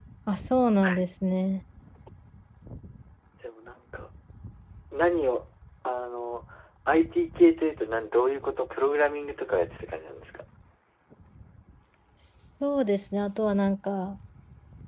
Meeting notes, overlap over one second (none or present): none